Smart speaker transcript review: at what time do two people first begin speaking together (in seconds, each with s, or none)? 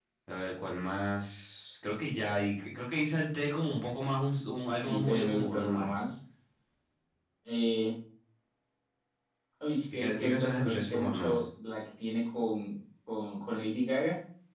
4.8 s